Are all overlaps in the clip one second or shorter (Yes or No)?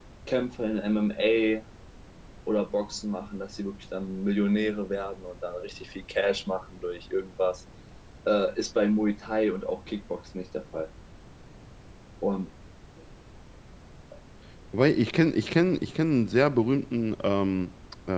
Yes